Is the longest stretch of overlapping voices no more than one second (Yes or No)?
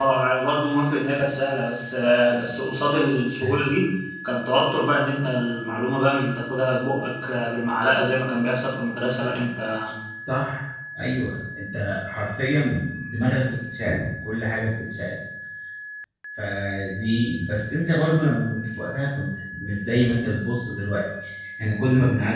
Yes